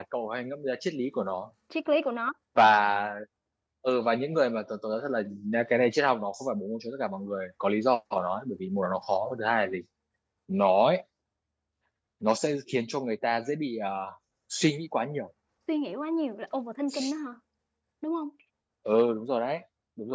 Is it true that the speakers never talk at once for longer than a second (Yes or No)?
Yes